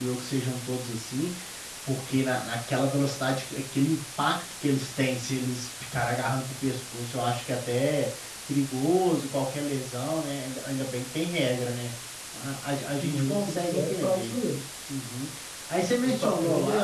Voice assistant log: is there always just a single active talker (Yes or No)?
No